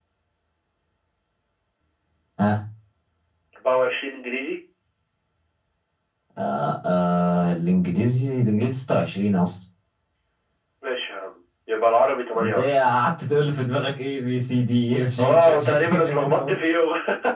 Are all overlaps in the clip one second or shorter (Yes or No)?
No